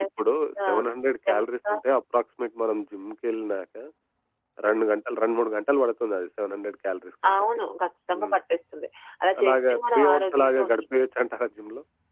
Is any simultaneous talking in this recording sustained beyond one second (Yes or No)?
Yes